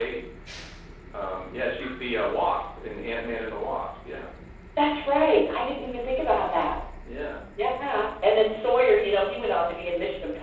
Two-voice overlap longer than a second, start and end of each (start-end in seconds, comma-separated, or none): none